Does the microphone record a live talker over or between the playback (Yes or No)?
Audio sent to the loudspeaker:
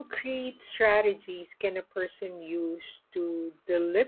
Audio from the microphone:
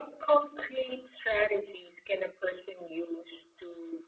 No